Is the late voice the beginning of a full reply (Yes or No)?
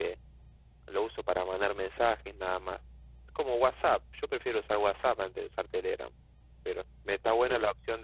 No